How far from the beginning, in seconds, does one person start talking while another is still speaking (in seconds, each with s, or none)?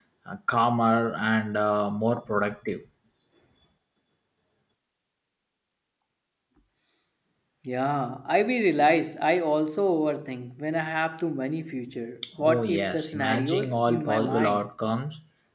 12.4 s